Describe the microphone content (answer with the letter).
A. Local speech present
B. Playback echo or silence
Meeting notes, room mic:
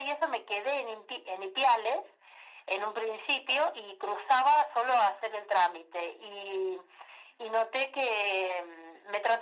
B